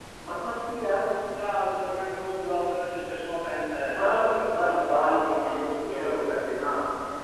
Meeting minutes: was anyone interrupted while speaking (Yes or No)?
Yes